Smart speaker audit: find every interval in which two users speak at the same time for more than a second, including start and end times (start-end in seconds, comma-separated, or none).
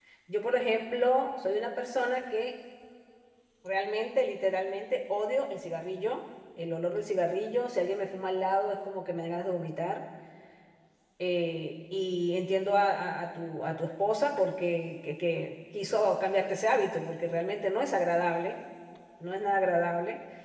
none